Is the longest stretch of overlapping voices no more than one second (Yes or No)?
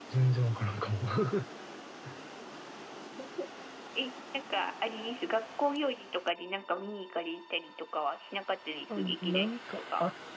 No